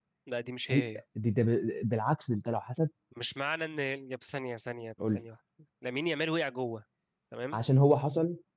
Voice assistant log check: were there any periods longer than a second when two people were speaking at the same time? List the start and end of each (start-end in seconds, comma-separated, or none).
none